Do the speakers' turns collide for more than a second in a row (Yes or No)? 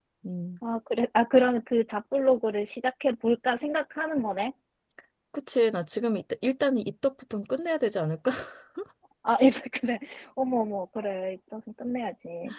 No